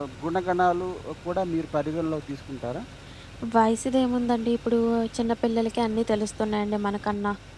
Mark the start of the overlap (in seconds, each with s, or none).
none